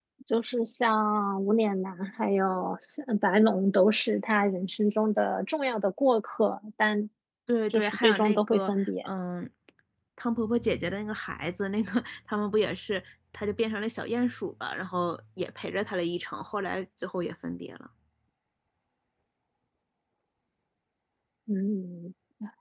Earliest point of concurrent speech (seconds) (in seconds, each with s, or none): 7.7 s